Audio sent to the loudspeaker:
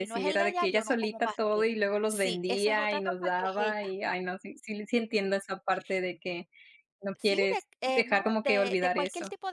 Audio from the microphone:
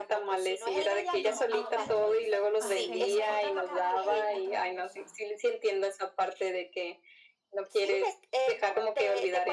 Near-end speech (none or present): present